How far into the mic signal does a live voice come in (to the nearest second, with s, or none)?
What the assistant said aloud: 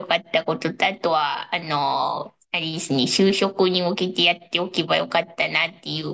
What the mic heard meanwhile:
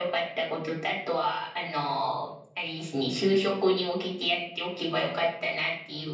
none